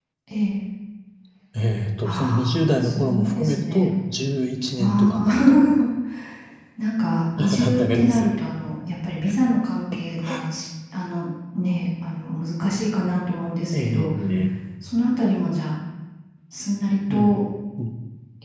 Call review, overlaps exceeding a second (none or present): present